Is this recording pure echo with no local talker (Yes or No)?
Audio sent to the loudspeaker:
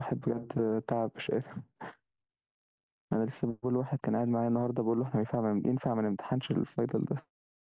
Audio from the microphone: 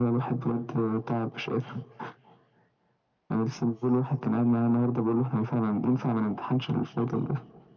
Yes